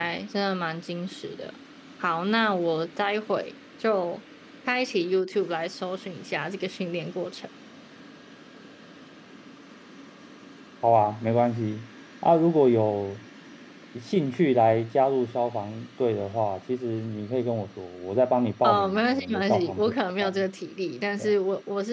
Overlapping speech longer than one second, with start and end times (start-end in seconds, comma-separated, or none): 18.6-20.4